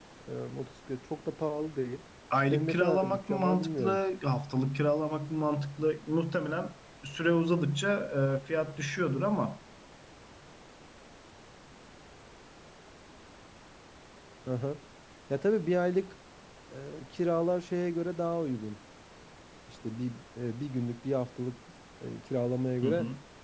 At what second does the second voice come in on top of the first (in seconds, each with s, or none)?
2.5 s